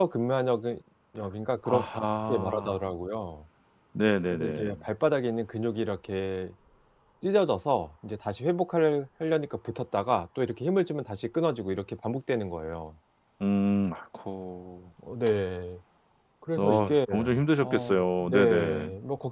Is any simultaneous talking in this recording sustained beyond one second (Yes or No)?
Yes